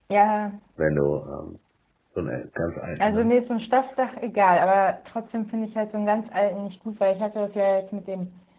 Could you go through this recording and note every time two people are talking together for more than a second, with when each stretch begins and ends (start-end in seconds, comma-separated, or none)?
none